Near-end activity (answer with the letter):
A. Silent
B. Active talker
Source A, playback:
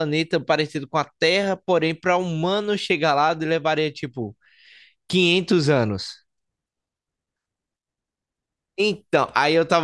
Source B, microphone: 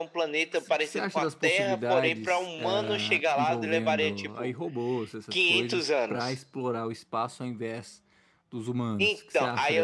B